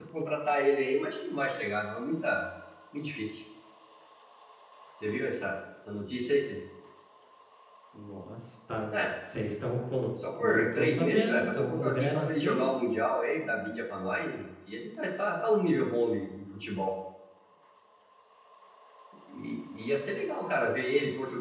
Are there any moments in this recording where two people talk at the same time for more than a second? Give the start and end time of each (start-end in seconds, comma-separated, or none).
10.4-12.7